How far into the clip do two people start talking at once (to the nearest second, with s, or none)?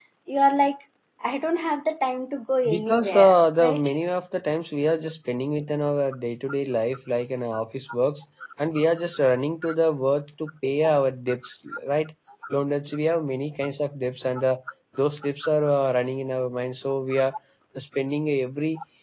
3 s